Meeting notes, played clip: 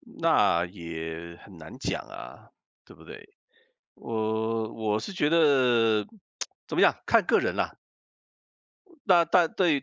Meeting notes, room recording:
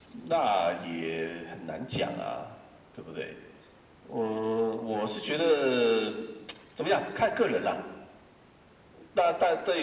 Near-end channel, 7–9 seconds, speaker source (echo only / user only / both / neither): echo only